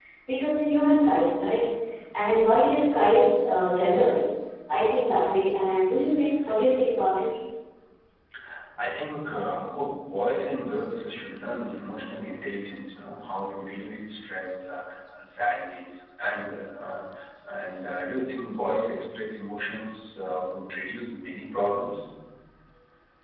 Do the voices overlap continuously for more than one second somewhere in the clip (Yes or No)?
No